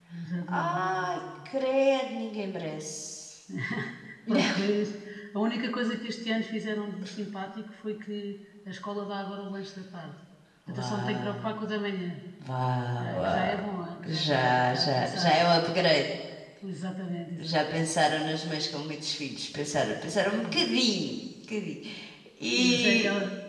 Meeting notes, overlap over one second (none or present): present